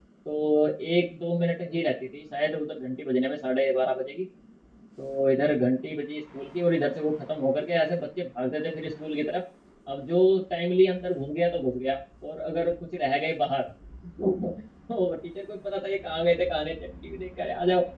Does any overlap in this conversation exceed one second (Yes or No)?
No